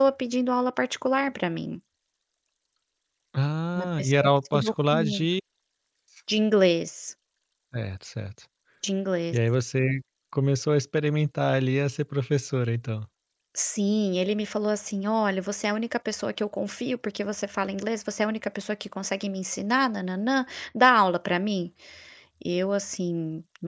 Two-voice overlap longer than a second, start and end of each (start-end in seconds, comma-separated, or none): 3.8-5.2